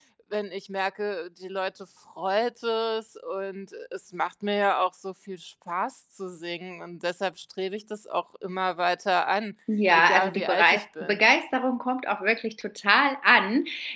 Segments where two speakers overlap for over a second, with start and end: 9.9-11.2

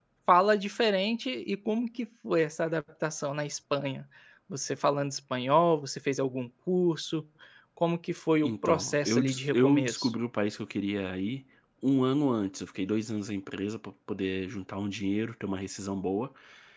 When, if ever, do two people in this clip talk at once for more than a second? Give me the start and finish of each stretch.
8.4-10.1

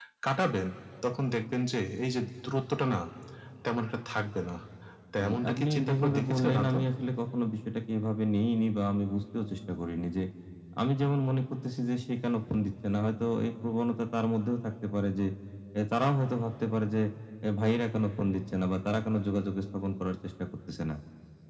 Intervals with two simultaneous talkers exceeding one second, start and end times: 5.2-6.8

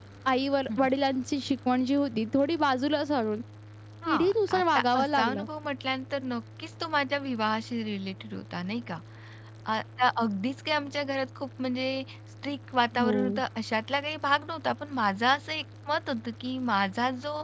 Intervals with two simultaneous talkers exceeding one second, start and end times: 4.1-5.4

